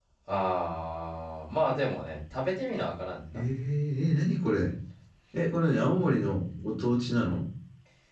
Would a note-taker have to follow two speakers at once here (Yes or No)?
No